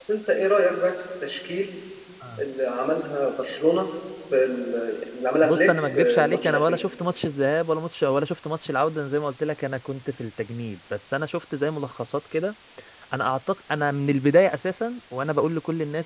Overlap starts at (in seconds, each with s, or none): 5.4 s